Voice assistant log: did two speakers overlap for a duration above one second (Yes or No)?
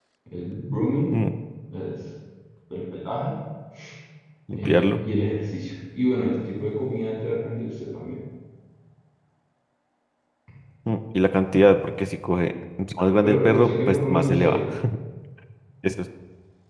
Yes